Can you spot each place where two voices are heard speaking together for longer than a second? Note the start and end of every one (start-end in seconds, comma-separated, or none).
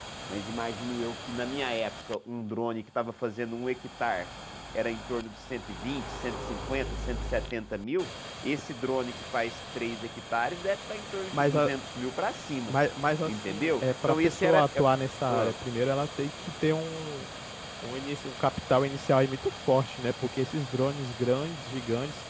13.2-14.8